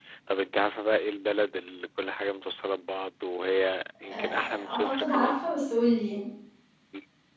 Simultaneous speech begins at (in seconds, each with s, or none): 4.0 s